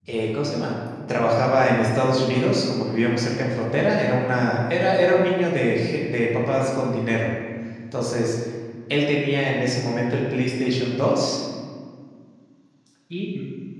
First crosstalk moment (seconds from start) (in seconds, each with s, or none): none